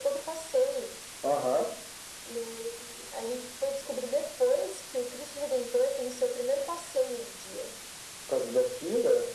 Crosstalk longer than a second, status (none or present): none